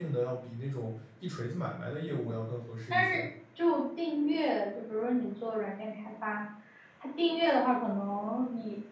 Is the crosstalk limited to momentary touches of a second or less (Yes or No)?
Yes